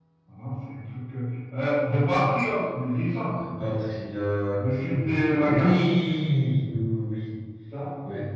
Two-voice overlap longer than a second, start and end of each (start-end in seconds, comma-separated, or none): 4.8-6.2